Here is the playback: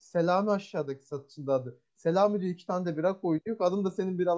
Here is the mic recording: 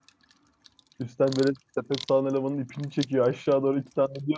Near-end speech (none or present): present